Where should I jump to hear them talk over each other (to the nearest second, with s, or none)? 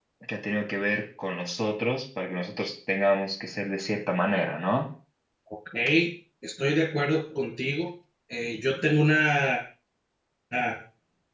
none